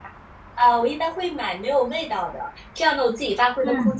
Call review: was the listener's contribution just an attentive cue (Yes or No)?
Yes